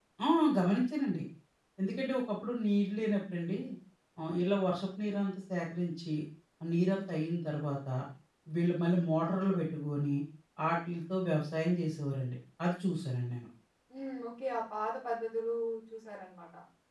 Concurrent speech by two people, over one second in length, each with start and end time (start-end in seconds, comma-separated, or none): none